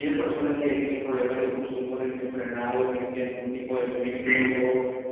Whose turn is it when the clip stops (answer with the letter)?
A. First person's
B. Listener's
A